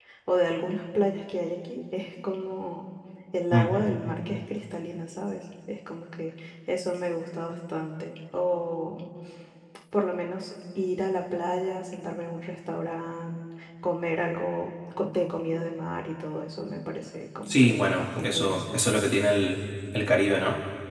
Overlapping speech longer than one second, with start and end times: 17.5-18.8

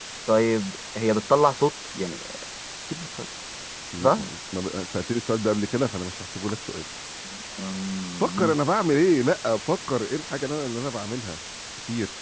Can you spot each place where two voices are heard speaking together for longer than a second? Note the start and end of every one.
none

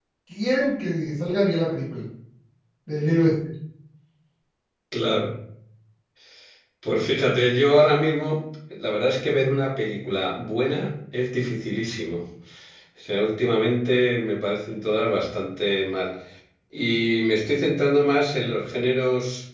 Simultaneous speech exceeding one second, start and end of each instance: none

